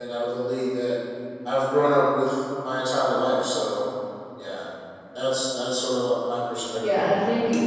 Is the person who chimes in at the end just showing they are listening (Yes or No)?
No